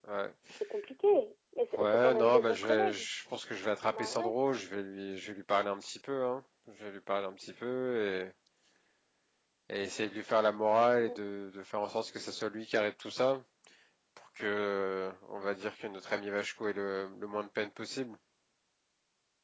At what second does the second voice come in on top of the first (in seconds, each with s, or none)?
1.8 s